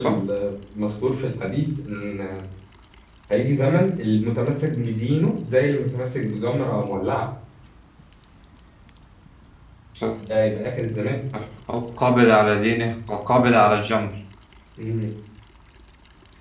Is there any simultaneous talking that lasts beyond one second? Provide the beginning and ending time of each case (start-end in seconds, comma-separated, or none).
none